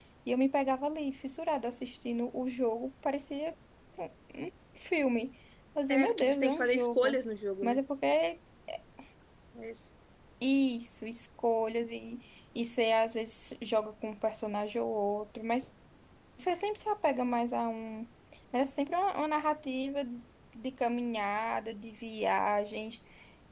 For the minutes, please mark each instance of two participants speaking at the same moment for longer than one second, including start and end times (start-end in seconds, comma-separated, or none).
5.9-7.2